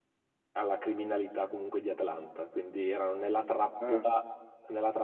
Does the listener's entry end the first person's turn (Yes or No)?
No